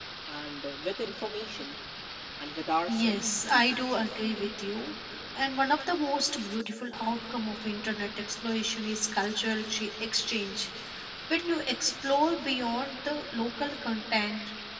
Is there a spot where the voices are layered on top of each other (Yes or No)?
Yes